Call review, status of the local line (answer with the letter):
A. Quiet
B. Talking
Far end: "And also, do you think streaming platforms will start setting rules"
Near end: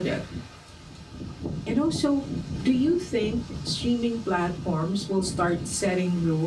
A